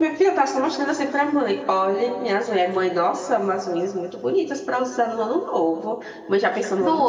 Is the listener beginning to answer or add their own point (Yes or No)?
Yes